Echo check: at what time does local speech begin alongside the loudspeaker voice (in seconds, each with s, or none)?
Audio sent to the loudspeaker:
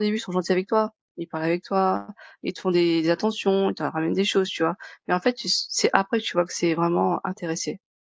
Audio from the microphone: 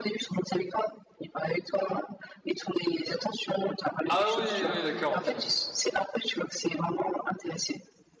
4.1 s